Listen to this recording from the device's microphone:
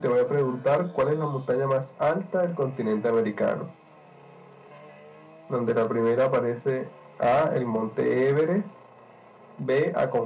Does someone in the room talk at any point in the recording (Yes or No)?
No